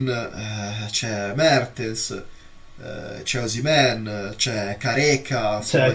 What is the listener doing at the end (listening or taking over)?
taking over